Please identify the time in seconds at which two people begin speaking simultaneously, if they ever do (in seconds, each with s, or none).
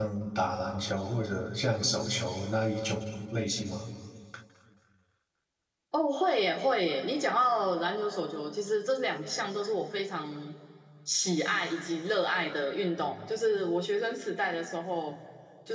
none